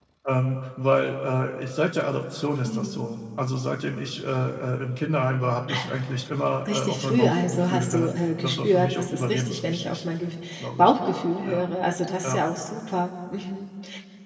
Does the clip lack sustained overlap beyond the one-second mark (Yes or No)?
No